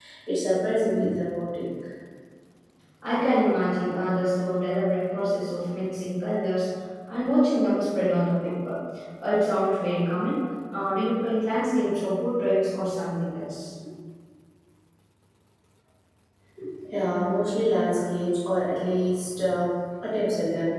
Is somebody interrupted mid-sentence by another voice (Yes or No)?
No